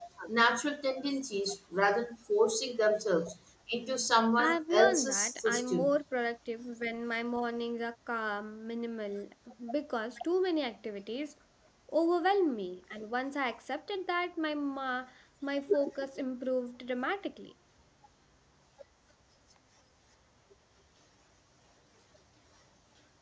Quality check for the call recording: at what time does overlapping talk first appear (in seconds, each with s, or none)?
4.4 s